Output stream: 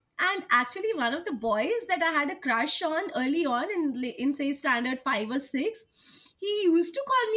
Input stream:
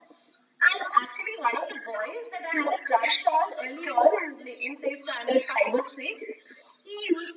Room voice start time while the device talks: none

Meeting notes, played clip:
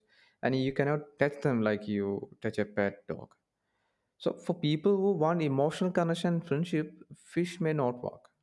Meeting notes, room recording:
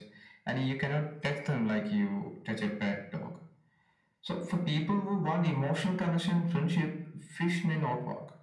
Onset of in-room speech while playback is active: none

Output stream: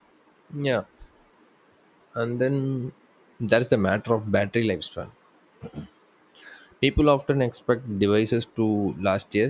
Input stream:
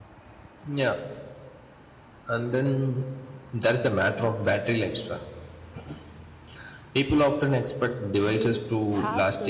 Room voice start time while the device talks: 8.2 s

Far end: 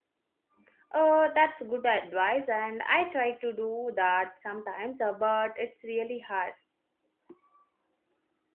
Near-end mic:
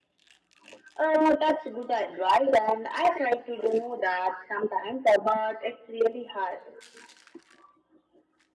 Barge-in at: none

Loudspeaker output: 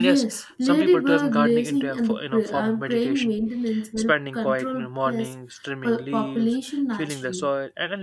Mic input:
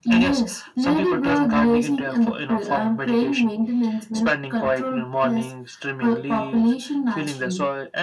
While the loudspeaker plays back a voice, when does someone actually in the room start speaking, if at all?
none

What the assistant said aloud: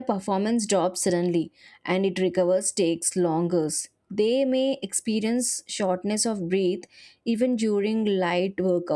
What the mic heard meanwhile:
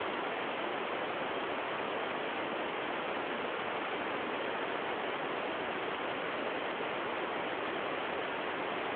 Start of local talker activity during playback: none

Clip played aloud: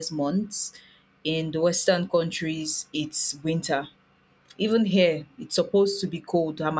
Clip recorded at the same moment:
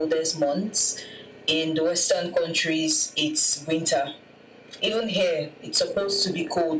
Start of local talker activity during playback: none

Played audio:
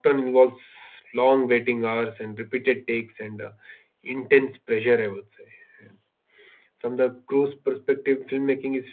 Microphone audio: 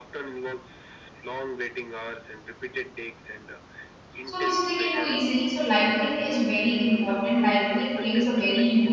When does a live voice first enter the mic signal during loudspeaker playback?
4.2 s

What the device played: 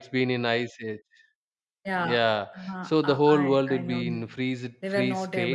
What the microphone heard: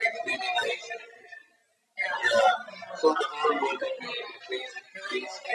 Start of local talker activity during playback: none

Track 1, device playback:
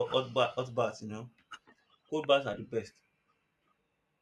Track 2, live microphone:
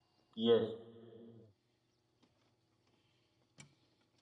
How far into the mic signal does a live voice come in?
0.4 s

